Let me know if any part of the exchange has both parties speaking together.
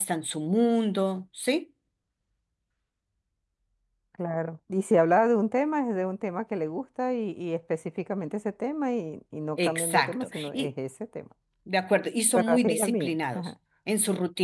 Yes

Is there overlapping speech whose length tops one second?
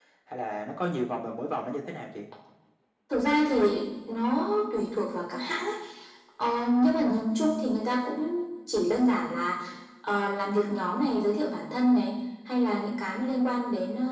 No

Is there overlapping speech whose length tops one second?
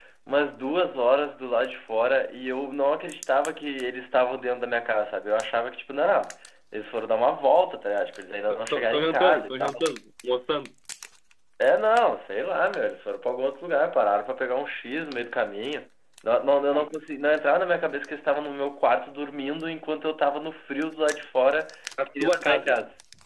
Yes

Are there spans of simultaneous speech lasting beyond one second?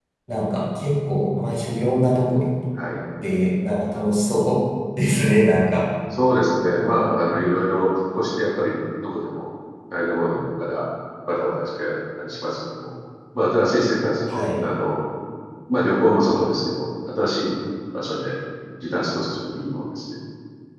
No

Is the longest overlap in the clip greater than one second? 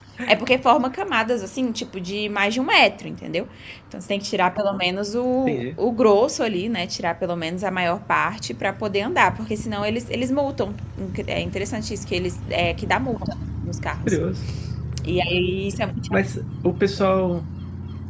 No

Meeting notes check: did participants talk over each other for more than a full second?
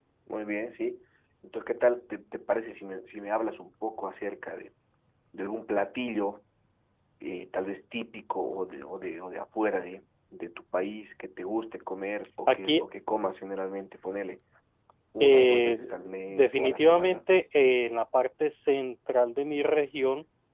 Yes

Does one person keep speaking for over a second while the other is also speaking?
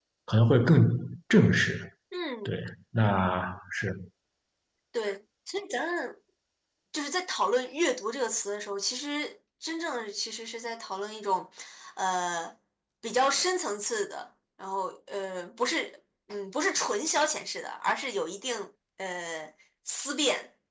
No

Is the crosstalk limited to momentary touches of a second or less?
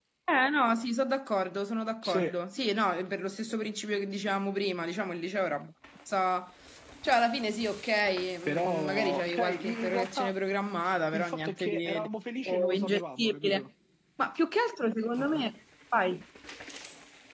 No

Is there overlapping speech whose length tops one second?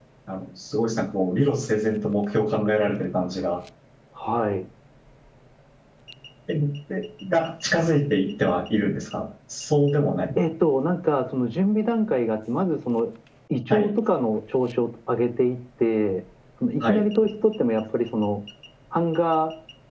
No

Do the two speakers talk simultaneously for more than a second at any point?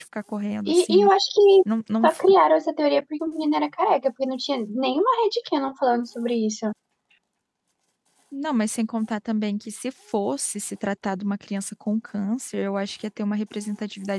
No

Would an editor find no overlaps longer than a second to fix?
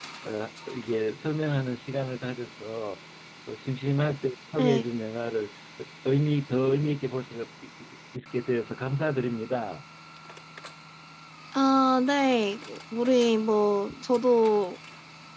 Yes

